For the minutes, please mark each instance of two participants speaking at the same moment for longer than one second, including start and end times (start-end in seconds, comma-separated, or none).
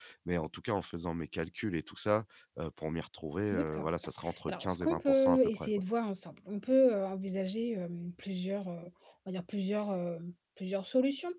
4.5-5.7